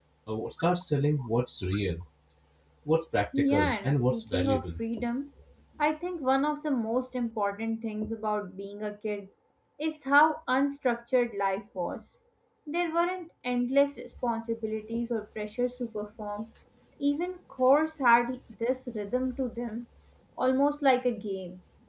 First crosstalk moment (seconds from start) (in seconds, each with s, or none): 3.4 s